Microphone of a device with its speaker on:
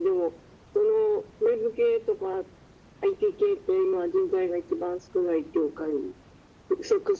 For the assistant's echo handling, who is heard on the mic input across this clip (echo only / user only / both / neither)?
echo only